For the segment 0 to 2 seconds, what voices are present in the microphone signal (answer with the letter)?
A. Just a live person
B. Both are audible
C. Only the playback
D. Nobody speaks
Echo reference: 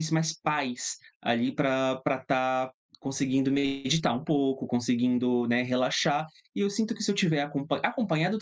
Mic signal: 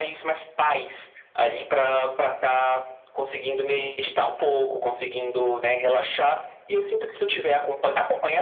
C